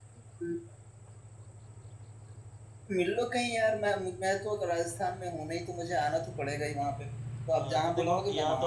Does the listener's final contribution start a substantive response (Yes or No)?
Yes